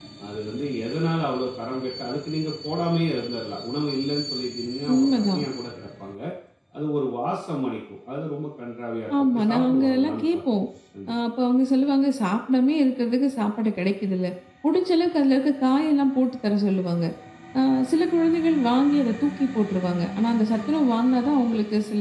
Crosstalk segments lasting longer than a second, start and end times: 9.2-10.4

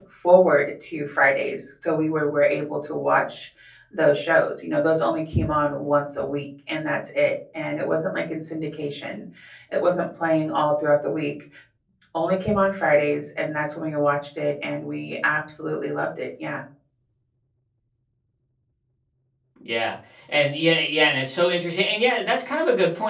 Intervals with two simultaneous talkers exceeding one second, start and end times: none

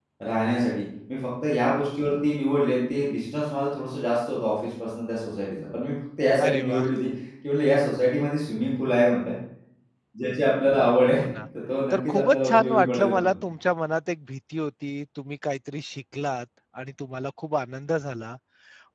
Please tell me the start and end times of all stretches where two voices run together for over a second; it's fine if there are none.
11.9-13.3

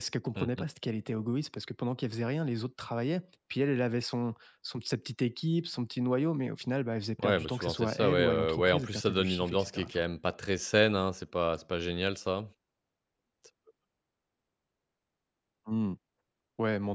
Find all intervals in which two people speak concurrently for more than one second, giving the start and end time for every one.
7.2-10.0

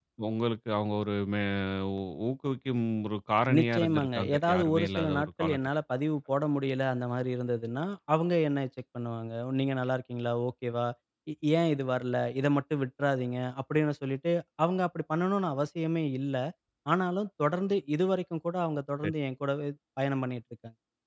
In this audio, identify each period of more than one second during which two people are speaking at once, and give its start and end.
3.6-5.6

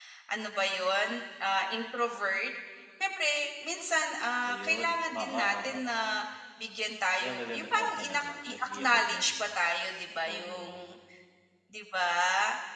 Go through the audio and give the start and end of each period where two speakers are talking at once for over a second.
4.5-5.8, 7.2-9.3

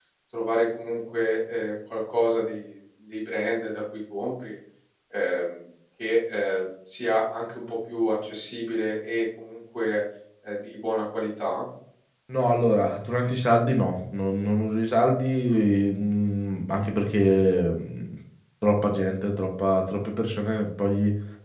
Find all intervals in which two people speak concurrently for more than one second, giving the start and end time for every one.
none

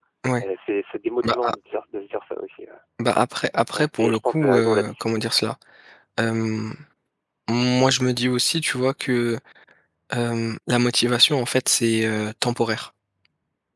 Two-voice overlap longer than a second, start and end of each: 3.7-5.3

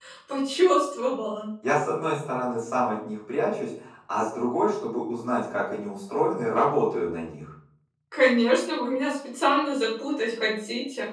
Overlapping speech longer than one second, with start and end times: none

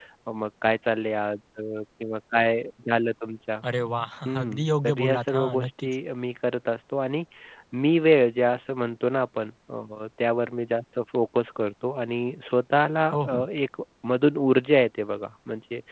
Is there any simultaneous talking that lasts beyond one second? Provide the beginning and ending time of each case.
4.5-5.9

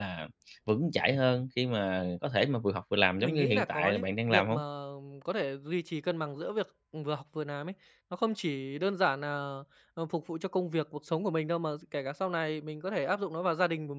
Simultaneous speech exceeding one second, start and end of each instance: 3.2-4.6

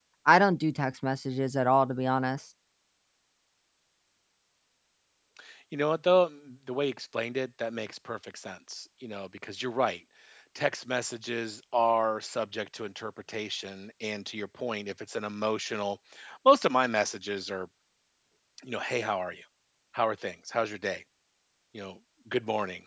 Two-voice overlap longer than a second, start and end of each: none

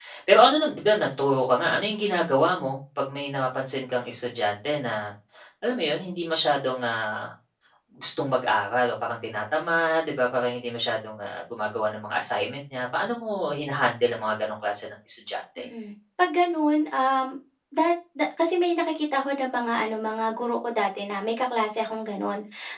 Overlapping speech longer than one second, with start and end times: none

